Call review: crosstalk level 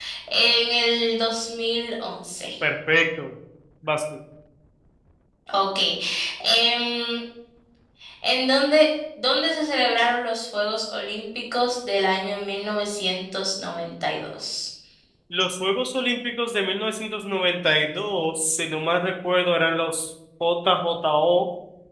none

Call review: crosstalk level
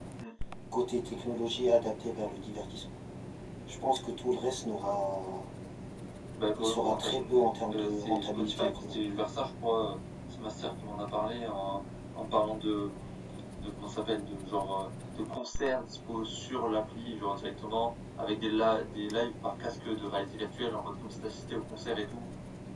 present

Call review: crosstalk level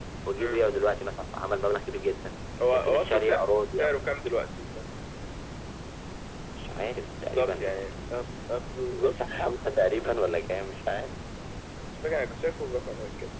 present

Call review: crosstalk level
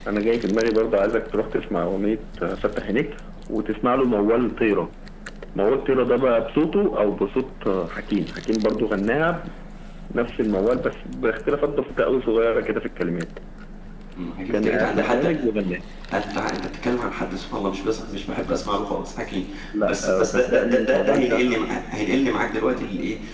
present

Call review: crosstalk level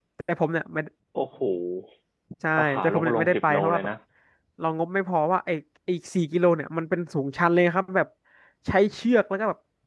present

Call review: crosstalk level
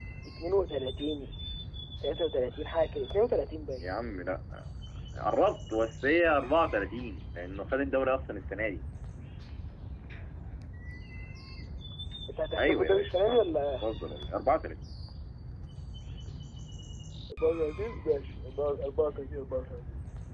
present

